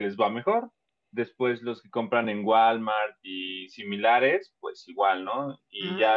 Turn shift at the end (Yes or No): No